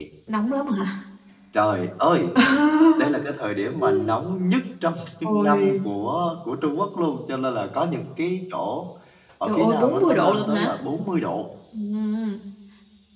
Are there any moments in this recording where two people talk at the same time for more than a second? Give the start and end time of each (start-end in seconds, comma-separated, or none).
9.4-10.7